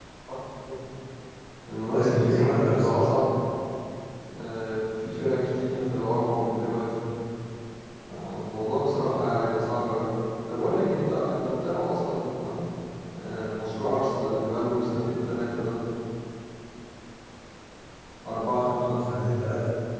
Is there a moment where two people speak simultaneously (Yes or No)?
Yes